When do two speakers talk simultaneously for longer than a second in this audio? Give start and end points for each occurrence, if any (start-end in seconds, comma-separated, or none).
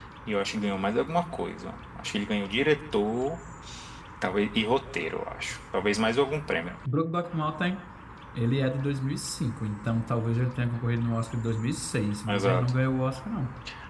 none